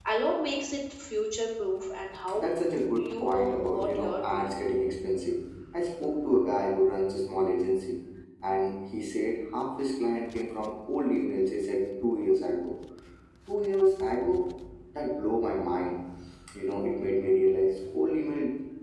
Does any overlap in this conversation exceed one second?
Yes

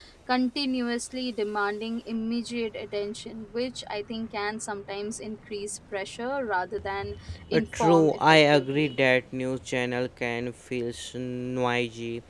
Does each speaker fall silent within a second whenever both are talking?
No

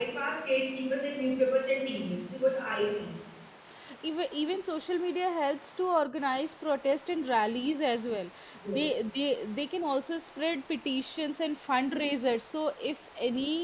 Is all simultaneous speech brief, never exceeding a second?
Yes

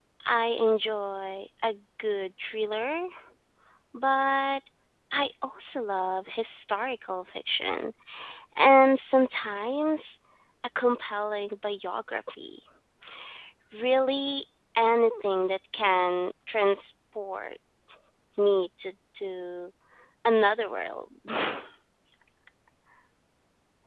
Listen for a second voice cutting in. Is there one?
No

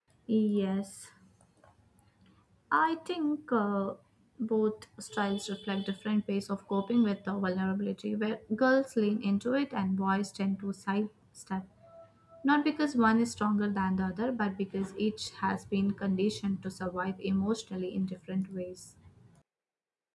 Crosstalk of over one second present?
No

